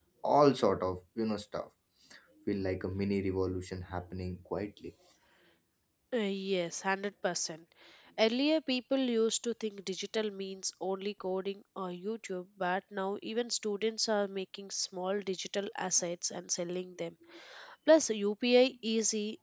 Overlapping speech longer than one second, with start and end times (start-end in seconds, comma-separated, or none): none